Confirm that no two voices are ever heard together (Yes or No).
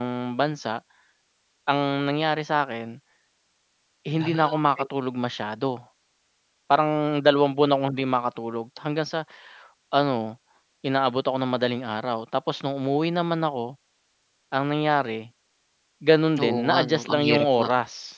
No